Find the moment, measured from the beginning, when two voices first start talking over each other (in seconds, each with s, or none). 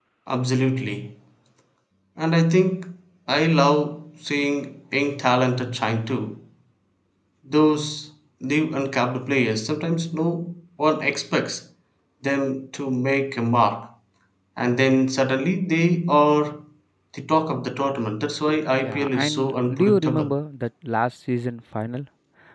18.8 s